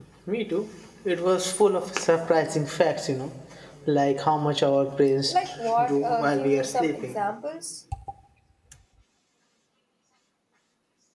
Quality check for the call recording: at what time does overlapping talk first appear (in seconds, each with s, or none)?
5.8 s